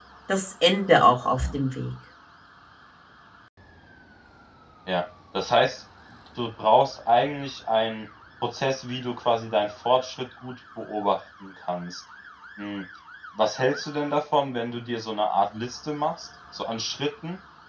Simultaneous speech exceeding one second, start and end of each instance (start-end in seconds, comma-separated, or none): none